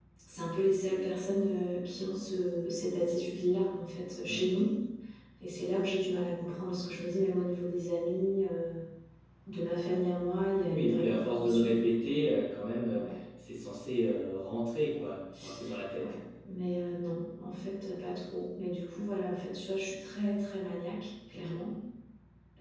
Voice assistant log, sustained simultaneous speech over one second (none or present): present